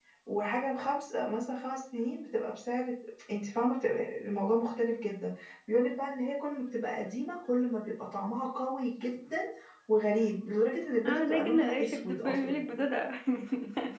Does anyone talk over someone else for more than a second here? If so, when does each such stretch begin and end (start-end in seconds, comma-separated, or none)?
11.1-12.6